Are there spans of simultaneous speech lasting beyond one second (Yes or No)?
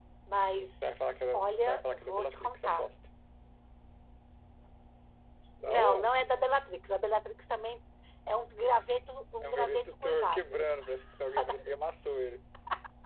Yes